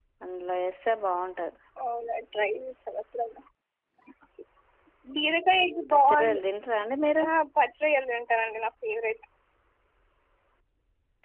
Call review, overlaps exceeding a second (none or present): none